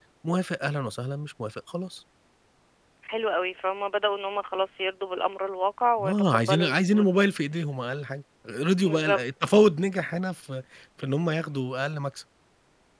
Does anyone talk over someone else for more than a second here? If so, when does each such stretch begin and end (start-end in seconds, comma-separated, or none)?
6.0-7.3